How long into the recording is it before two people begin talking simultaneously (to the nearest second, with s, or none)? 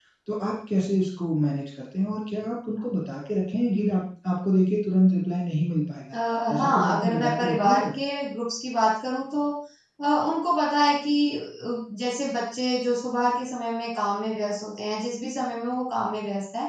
7 s